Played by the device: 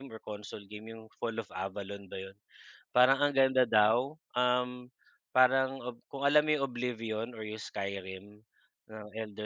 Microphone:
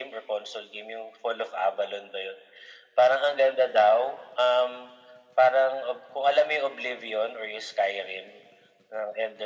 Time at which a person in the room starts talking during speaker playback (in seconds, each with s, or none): none